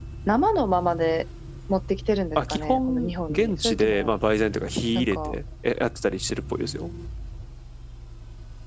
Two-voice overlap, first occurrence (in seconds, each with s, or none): 2.4 s